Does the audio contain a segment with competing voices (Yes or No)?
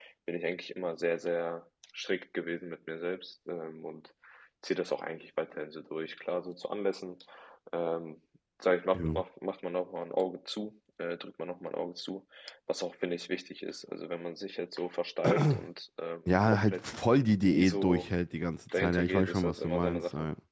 Yes